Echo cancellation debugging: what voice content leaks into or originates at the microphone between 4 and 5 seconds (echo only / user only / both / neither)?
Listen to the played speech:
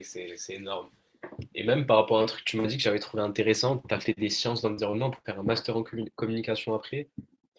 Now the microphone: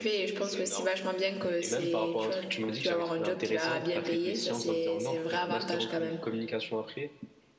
both